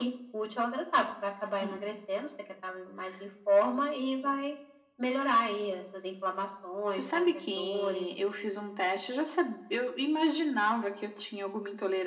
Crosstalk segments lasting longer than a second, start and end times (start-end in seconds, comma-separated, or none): 6.9-8.3